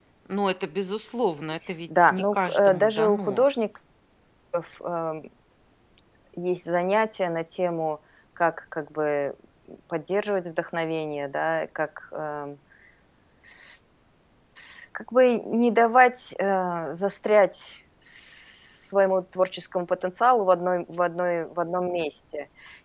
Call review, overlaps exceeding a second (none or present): present